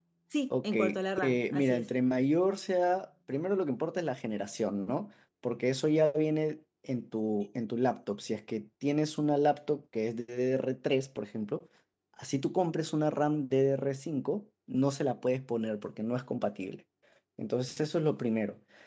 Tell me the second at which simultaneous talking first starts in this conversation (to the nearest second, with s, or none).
1 s